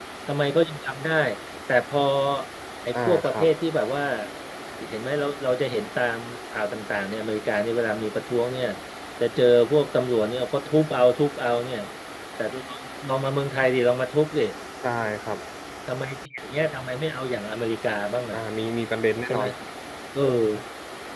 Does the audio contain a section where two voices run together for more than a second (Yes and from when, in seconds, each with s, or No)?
No